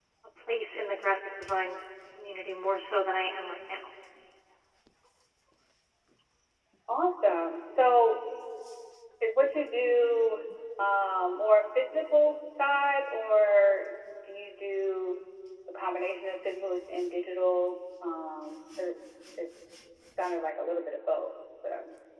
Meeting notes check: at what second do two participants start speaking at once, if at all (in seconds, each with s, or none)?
none